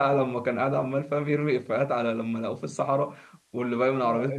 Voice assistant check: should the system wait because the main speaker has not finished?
No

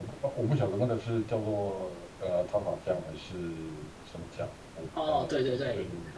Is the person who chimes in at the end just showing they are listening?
No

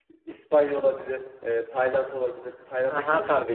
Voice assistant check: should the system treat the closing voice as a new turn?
Yes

